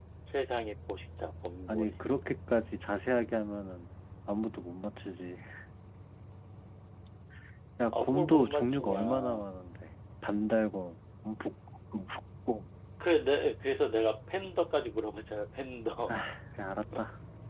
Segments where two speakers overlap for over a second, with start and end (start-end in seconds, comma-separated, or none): 7.9-9.5